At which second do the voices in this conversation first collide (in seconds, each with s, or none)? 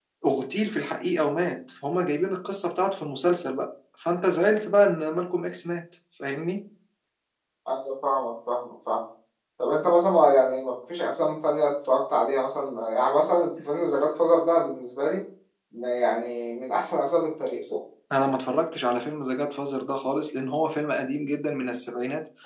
none